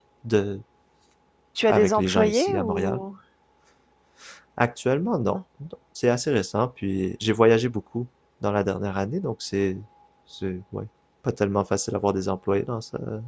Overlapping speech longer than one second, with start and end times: 1.7-3.0

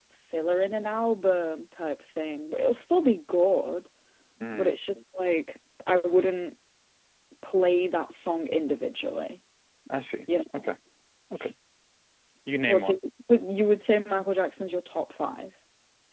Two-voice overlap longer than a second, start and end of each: none

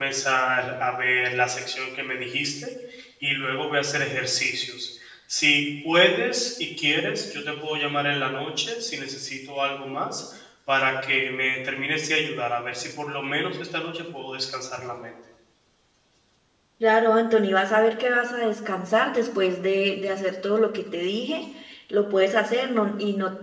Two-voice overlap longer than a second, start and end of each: none

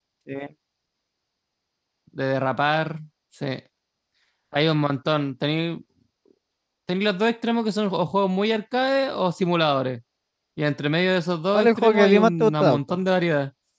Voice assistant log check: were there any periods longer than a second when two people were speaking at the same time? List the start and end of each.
11.5-12.8

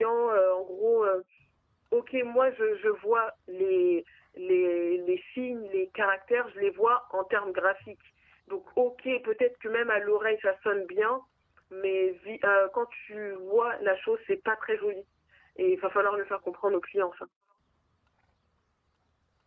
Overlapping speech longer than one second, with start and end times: none

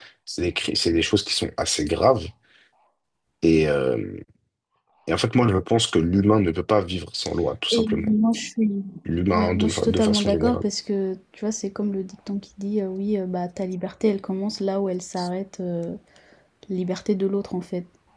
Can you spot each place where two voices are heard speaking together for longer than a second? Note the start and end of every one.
9.3-10.6

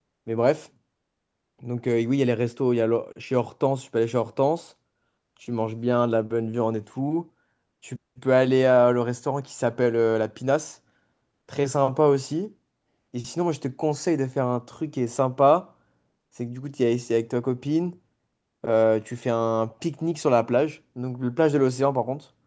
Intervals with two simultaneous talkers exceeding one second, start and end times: none

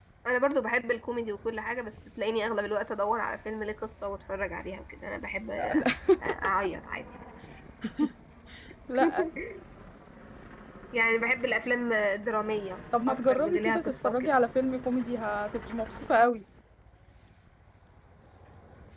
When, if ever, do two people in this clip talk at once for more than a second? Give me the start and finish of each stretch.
13.1-14.3

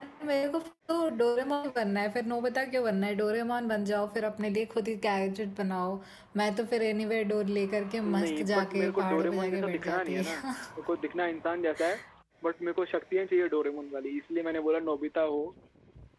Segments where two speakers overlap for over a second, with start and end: 8.1-10.4

